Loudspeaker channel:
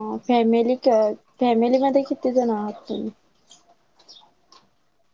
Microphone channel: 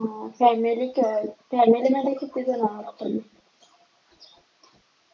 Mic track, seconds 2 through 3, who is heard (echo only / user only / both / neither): echo only